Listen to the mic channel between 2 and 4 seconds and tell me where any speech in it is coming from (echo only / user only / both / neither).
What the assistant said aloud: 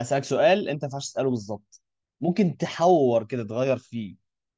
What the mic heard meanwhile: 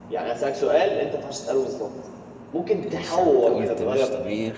both